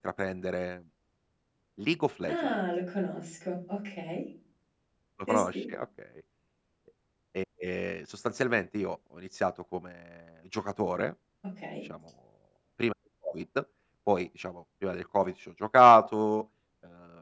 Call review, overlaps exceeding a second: none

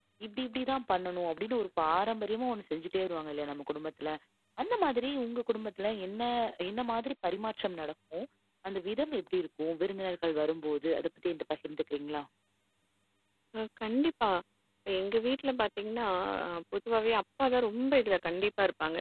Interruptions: none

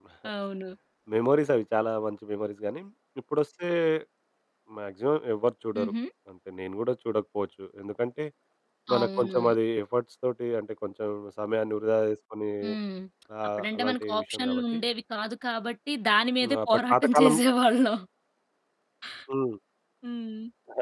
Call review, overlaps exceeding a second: present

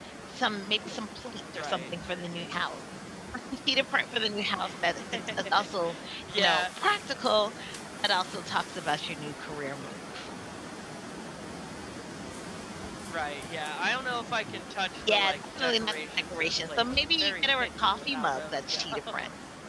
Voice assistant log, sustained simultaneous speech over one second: present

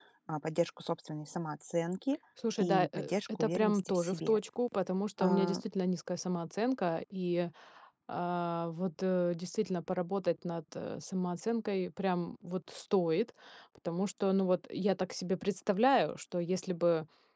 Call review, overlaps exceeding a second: present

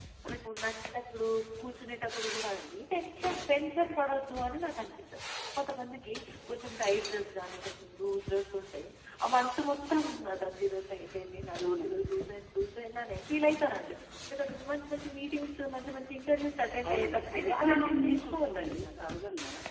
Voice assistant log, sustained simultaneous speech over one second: present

